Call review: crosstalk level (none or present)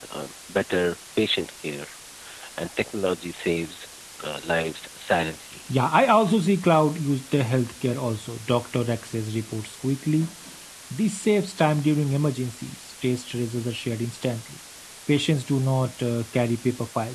none